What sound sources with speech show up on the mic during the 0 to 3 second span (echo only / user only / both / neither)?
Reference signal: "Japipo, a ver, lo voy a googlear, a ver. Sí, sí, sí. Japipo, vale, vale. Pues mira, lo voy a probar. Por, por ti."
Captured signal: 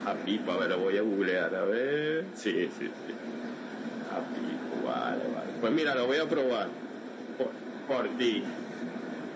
echo only